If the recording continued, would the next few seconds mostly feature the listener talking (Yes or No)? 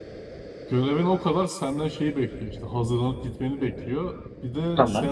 No